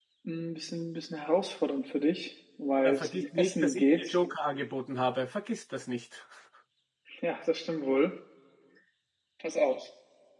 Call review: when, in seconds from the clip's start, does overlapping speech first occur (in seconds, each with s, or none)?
2.8 s